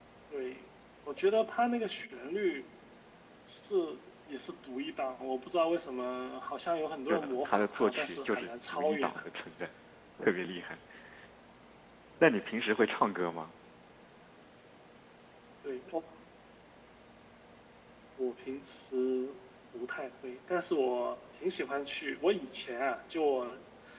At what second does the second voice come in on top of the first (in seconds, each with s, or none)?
7.1 s